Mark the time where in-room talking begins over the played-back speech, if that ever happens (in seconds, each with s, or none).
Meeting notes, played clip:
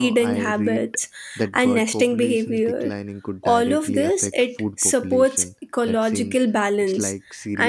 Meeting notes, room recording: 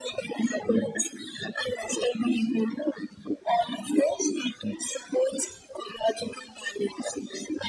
none